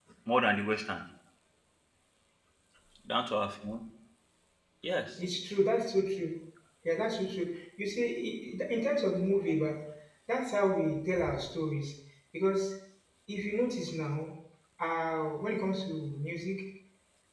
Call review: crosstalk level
none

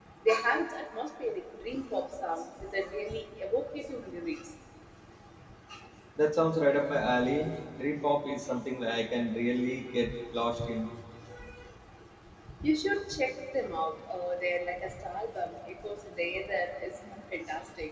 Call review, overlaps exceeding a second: none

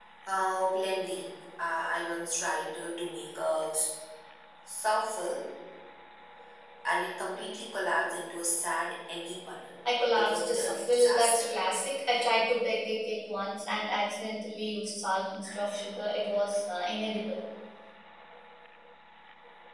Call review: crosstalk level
present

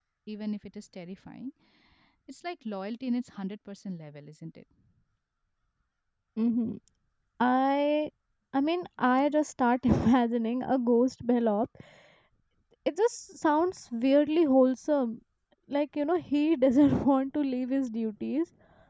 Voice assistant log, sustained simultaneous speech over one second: none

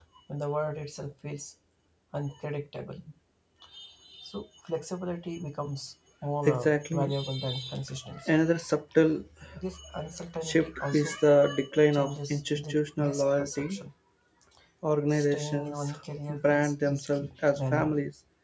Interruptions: present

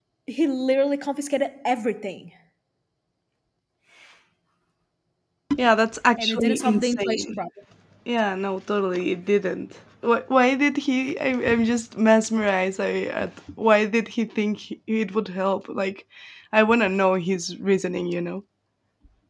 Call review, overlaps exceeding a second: present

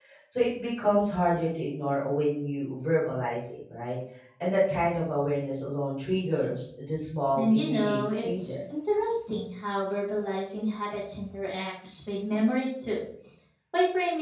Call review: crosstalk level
present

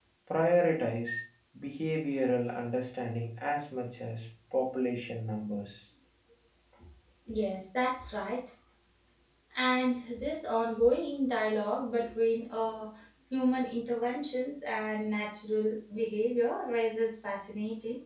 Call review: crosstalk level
none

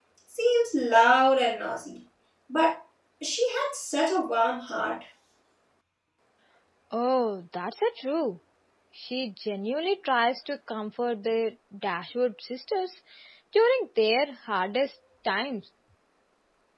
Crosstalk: none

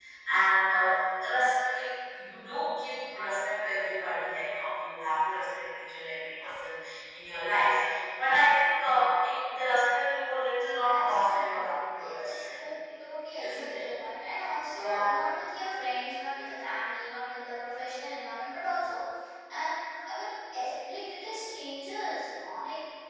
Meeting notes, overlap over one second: present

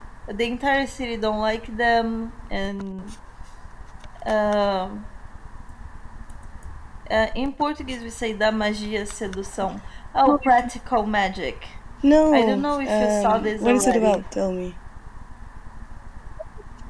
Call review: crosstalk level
present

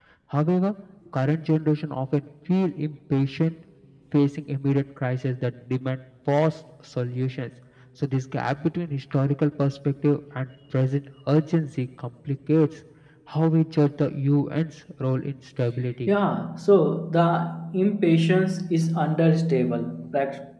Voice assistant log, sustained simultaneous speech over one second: none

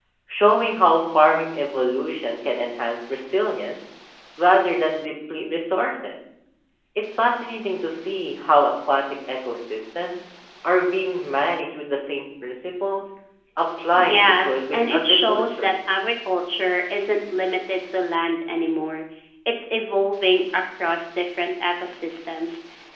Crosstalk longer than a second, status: present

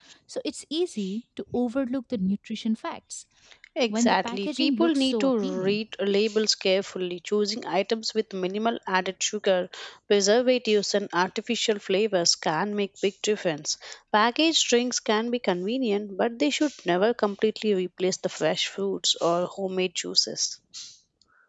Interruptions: present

